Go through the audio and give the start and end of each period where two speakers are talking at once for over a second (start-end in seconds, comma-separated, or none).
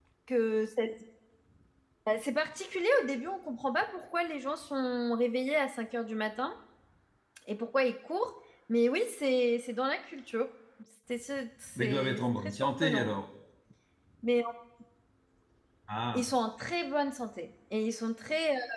11.8-13.1